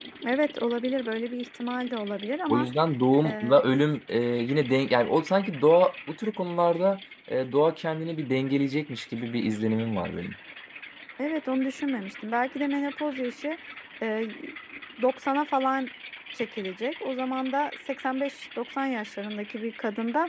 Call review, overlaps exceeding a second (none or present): none